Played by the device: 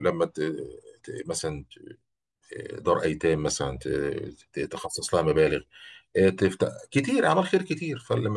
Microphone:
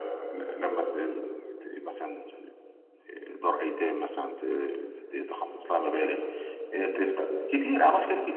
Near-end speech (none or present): none